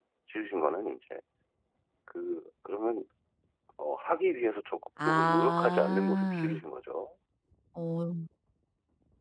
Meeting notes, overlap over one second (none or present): present